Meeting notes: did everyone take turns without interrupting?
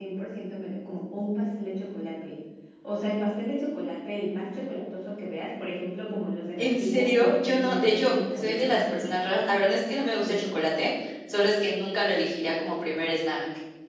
No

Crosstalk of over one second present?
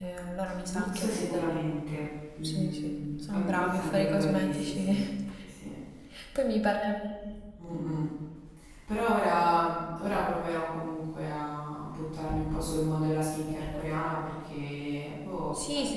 Yes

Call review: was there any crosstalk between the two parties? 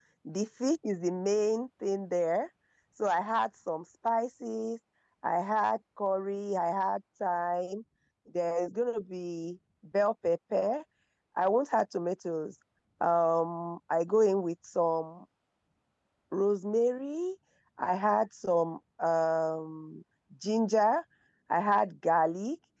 No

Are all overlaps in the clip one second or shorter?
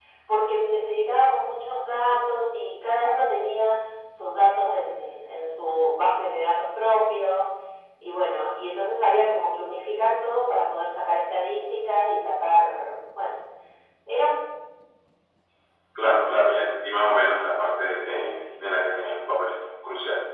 Yes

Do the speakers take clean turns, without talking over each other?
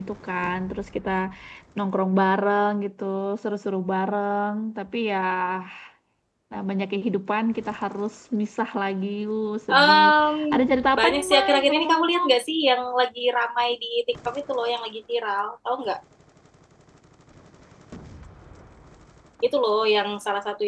No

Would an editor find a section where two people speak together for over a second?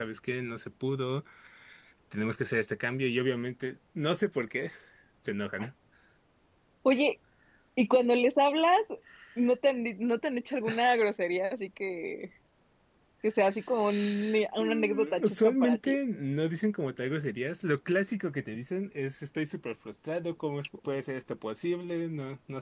Yes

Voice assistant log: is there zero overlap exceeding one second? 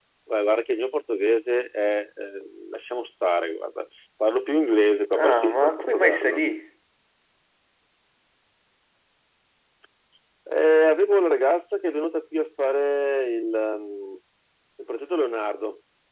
No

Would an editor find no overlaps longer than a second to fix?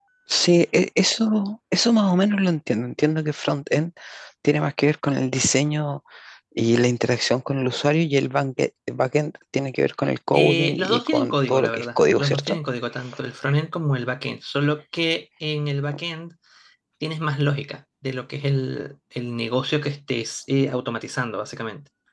No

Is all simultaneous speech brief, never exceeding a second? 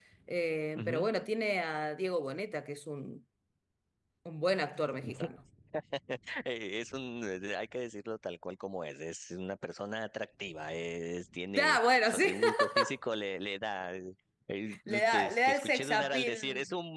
No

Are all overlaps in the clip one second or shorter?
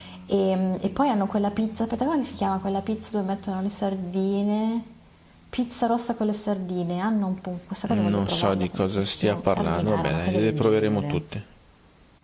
No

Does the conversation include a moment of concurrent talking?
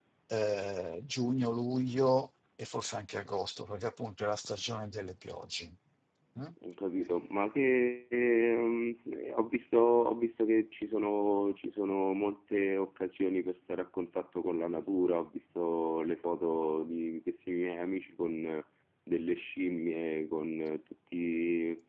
No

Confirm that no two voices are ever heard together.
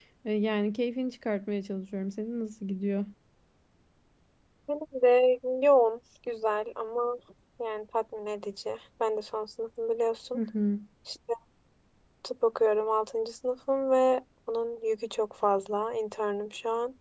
Yes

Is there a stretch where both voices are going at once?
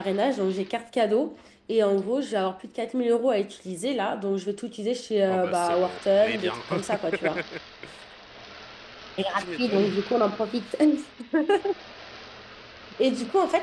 Yes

